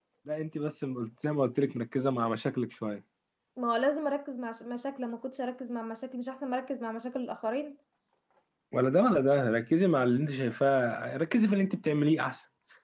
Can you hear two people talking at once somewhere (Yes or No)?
No